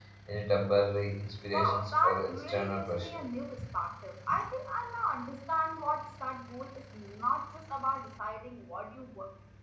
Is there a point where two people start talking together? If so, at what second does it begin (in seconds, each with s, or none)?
1.4 s